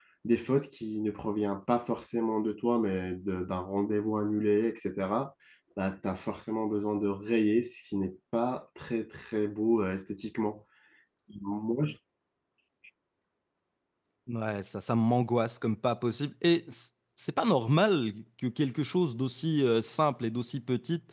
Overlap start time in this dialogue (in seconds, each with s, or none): none